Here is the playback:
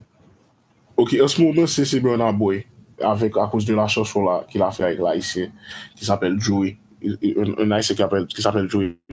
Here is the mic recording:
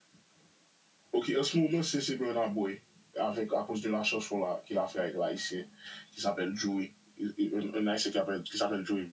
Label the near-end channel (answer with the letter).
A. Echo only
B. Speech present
A